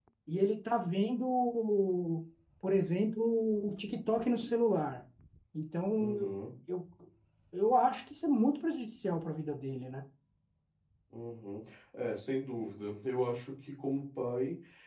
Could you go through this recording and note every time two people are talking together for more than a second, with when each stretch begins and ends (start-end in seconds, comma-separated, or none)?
none